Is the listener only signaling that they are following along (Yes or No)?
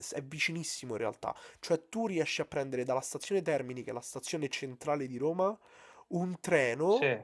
Yes